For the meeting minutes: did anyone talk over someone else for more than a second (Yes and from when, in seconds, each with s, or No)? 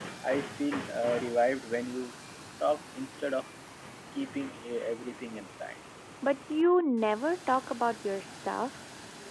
No